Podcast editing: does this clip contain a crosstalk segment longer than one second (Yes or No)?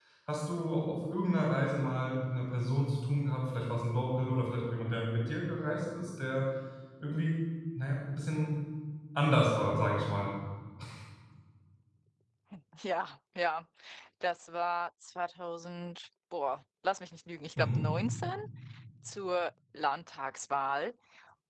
No